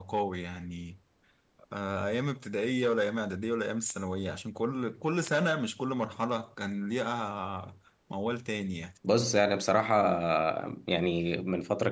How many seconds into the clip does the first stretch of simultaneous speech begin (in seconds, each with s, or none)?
none